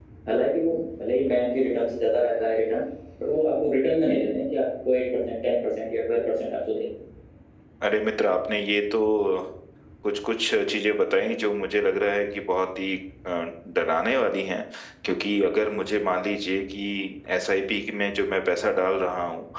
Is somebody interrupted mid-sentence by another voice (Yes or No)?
No